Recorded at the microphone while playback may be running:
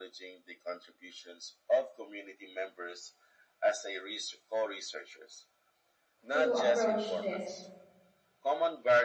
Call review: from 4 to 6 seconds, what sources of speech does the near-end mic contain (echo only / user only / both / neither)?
echo only